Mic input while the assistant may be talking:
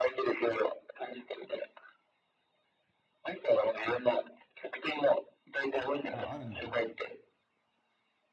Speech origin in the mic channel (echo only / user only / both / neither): both